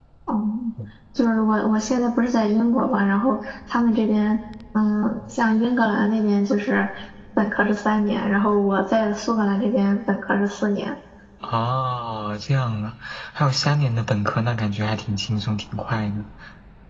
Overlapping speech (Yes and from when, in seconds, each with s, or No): No